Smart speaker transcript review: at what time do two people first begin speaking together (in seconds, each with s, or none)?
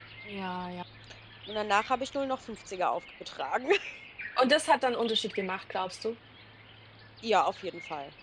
none